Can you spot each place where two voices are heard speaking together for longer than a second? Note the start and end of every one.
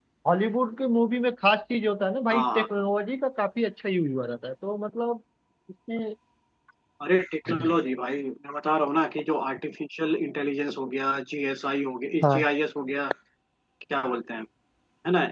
none

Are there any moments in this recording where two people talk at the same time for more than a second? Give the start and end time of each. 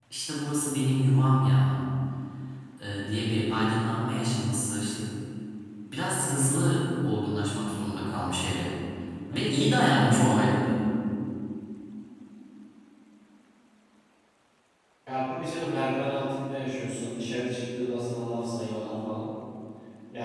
none

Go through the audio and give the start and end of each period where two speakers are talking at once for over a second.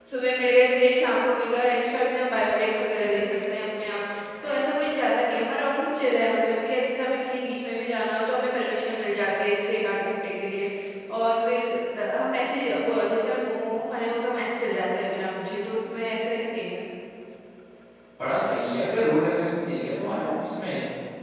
none

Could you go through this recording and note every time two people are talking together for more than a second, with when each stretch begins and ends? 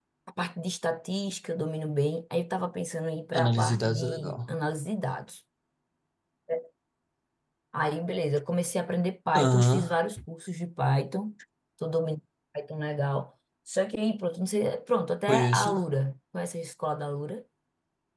3.3-4.5

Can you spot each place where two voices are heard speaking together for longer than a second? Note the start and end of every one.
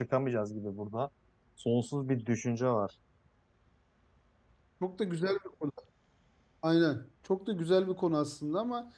none

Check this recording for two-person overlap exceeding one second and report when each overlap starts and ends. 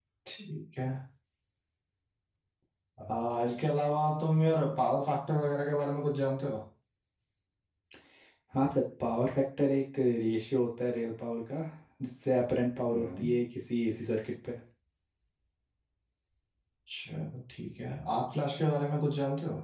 none

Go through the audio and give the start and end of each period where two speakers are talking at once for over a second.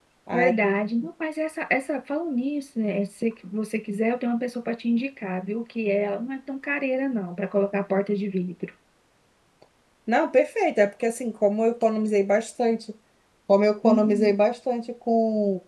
none

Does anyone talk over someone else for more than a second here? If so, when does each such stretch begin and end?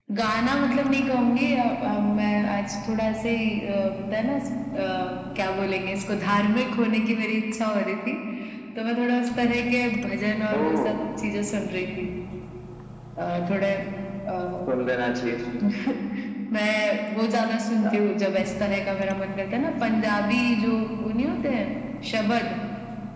none

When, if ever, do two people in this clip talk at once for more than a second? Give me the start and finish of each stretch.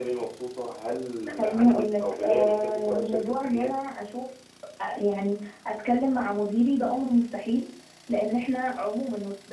1.4-3.7

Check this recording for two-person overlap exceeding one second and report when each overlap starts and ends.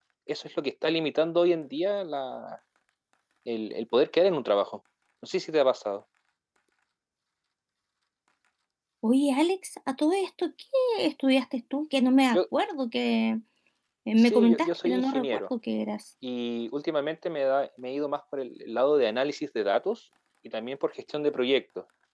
14.2-15.4

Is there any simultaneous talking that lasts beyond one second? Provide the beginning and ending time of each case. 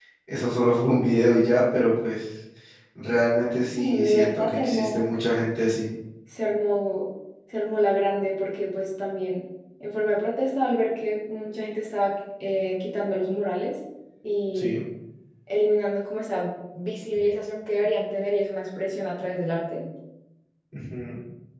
3.8-5.0

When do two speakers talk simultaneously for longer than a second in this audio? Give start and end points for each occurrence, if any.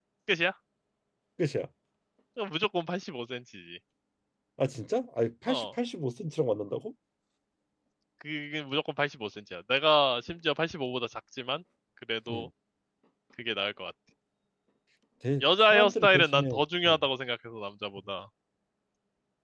15.4-17.0

